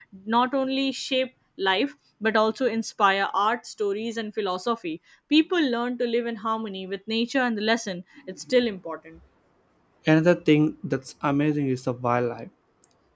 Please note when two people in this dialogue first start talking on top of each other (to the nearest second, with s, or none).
none